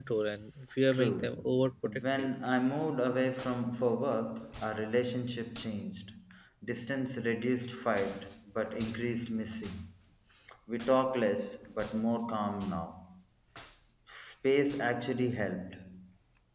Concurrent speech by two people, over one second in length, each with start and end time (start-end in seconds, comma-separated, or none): 0.9-2.3